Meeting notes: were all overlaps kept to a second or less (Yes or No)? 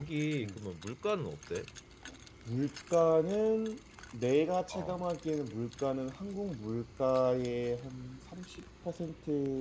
Yes